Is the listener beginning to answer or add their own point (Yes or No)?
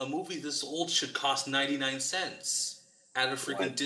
No